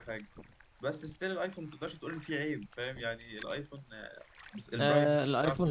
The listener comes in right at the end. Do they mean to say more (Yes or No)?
Yes